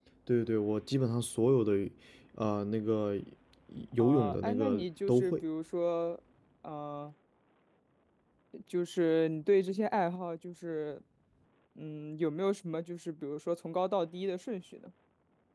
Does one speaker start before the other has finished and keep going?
Yes, from 4.0 s

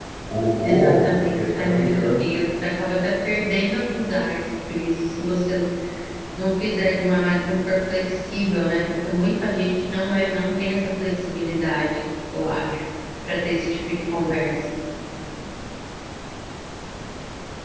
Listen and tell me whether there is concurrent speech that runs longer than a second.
Yes, from 0.6 s

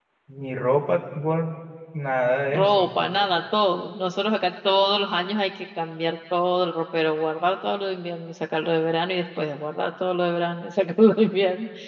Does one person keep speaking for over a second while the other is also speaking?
No

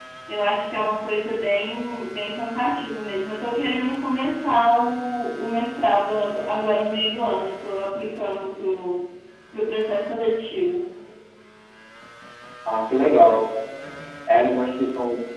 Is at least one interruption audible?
No

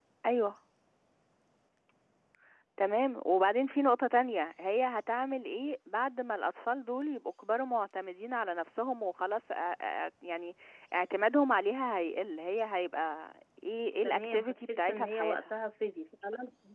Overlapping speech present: Yes, from 14.0 s

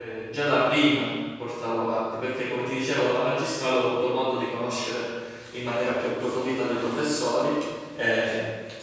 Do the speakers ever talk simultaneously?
No

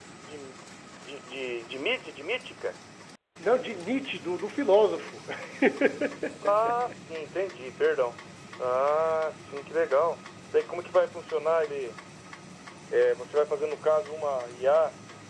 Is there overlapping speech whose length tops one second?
No

